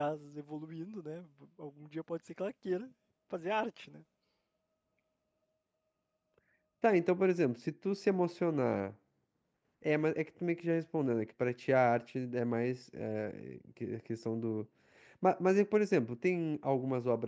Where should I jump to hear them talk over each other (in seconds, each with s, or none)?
none